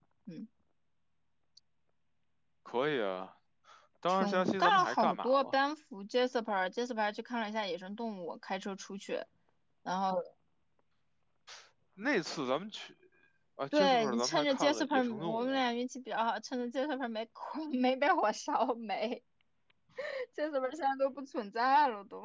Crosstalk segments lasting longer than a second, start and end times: 4.1-5.5, 13.7-15.6

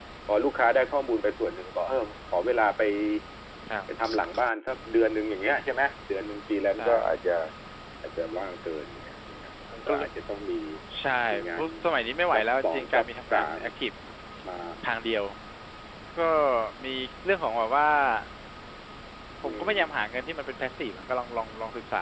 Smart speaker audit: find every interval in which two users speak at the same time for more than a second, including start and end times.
12.3-13.6

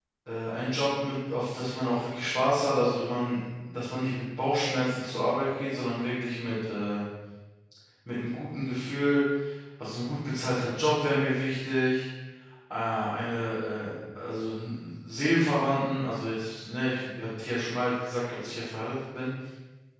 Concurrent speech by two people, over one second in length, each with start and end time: none

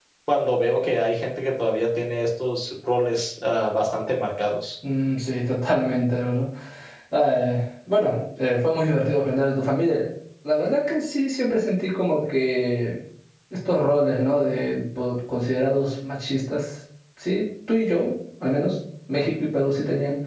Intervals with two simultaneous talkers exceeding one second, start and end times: none

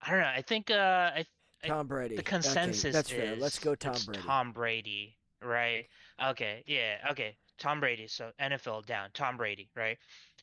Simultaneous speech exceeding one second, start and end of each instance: 2.2-4.3

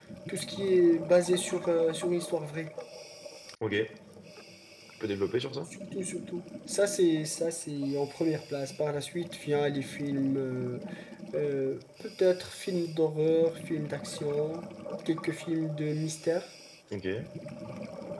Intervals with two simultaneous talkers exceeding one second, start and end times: none

